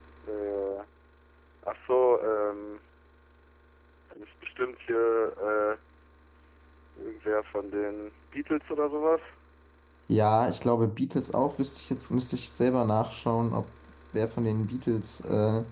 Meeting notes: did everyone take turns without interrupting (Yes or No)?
Yes